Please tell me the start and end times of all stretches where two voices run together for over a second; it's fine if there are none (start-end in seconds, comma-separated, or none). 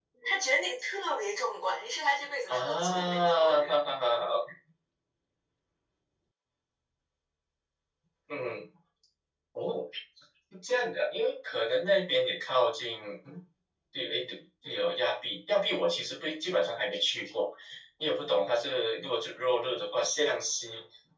2.5-3.7